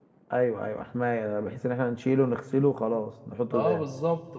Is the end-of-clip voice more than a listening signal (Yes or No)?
Yes